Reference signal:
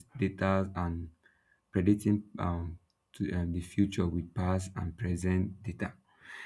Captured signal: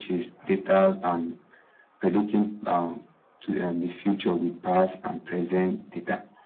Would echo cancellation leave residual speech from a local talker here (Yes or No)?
No